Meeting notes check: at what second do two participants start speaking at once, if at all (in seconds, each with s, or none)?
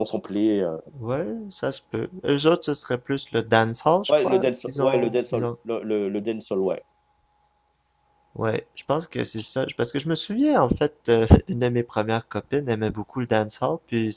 4.1 s